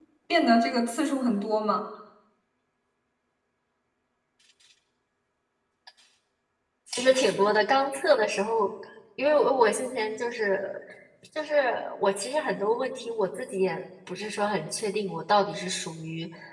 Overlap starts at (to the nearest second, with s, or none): none